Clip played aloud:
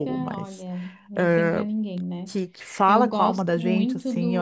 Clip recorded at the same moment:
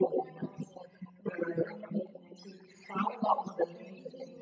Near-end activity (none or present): none